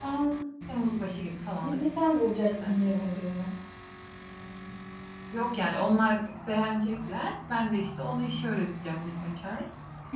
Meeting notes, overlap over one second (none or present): none